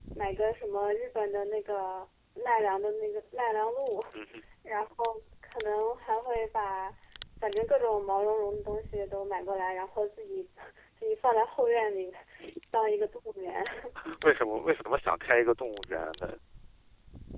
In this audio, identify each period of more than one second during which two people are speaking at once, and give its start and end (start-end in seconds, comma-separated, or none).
none